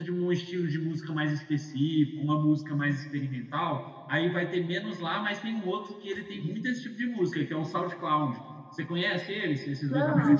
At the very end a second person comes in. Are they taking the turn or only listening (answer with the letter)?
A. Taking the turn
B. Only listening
A